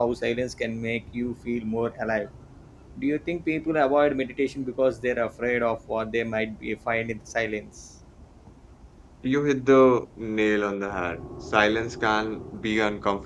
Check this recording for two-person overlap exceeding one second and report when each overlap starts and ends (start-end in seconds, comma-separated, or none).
none